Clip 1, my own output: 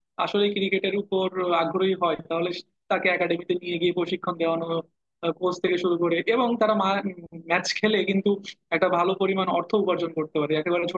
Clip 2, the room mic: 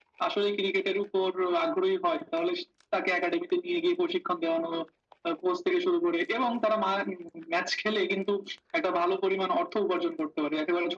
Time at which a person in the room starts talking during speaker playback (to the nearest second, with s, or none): none